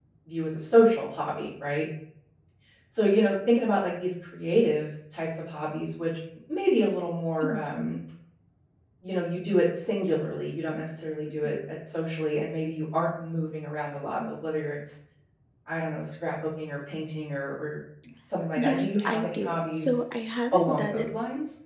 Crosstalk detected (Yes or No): Yes